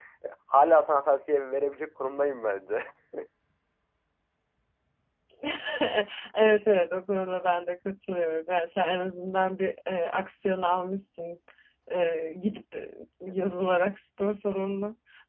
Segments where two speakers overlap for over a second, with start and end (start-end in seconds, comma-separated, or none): none